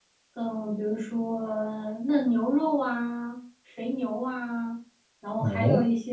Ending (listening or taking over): listening